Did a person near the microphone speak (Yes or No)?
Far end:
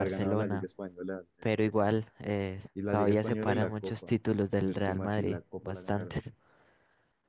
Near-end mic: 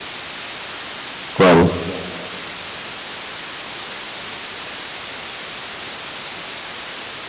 Yes